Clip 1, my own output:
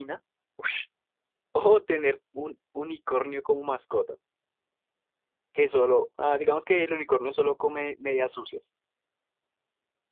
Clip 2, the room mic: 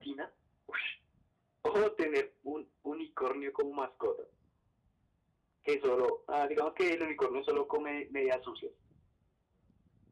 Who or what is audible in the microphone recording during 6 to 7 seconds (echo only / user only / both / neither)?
echo only